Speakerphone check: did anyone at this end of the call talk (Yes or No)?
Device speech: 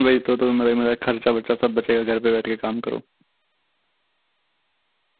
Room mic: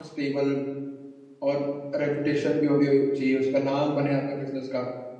Yes